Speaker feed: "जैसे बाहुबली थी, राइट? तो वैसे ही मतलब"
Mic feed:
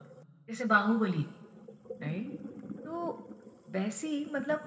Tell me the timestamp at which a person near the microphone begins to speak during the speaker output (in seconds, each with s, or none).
none